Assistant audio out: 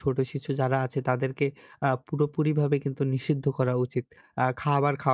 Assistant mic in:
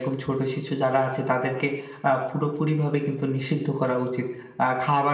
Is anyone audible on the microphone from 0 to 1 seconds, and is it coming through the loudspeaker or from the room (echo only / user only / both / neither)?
echo only